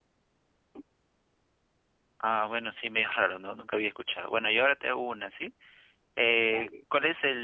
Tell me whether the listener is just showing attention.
Yes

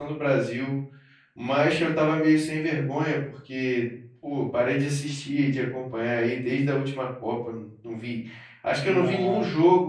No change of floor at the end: Yes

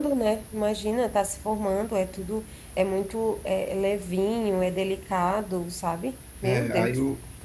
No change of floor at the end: No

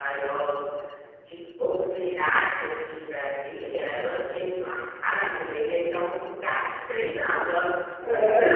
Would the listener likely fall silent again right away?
No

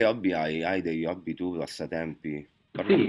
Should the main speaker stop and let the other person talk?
Yes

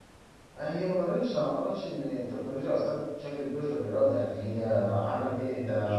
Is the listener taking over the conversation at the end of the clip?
Yes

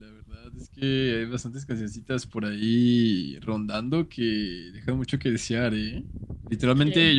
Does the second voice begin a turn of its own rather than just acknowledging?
No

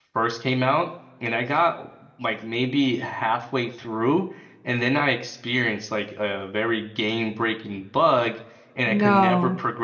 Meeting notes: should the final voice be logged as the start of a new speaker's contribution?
No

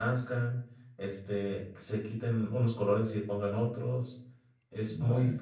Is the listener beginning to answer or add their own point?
No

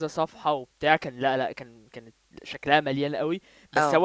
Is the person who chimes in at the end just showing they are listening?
Yes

